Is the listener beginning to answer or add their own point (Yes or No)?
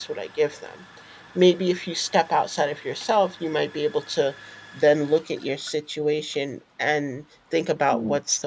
No